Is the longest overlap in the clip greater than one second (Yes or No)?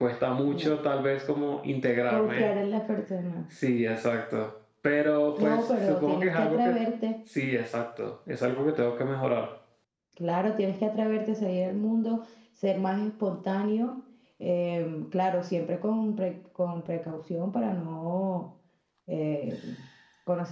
Yes